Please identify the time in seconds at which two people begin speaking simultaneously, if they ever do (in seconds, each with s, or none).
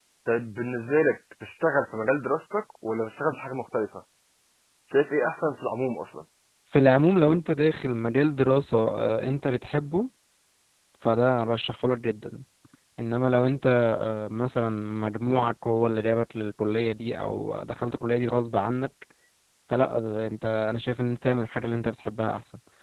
none